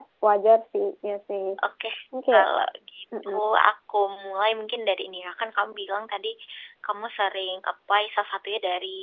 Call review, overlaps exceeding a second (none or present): none